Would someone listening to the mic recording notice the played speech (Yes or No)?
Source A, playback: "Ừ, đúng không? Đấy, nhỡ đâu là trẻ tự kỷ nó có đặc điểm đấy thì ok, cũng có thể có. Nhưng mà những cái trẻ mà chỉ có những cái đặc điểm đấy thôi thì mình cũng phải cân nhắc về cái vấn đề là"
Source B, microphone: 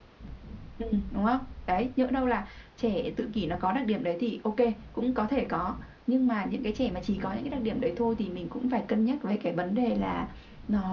Yes